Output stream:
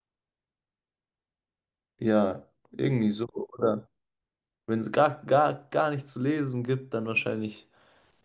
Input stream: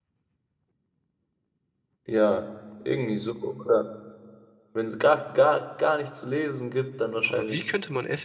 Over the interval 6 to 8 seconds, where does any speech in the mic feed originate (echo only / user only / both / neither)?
both